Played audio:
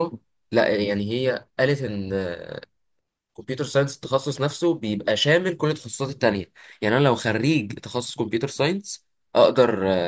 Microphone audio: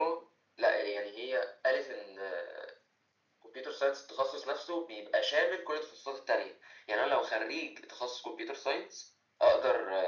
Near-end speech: none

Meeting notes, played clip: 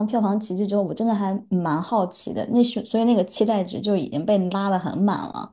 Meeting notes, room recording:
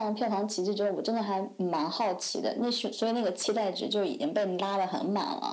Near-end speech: none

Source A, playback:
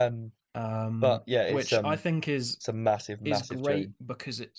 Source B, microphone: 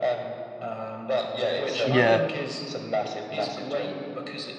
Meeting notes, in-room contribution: present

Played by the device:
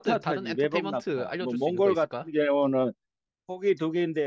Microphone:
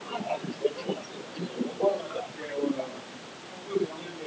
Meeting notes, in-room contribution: none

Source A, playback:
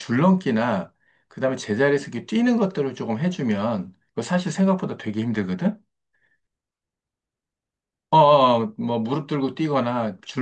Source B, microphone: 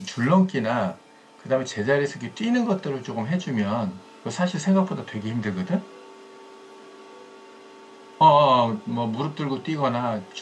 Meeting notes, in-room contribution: none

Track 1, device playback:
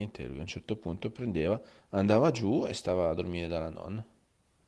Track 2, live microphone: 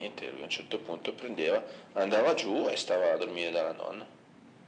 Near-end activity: none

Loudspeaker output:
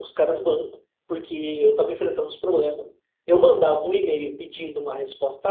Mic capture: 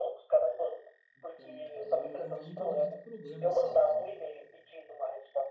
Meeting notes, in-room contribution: present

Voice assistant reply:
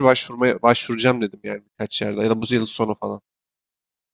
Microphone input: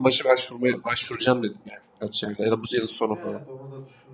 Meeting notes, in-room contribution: present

